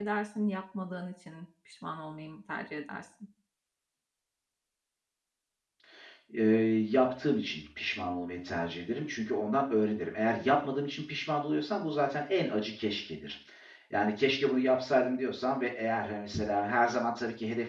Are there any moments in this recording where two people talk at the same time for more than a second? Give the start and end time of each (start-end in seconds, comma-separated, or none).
none